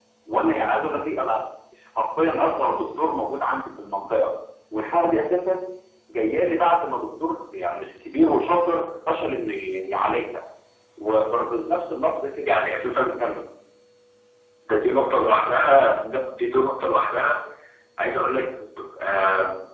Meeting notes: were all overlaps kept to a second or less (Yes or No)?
Yes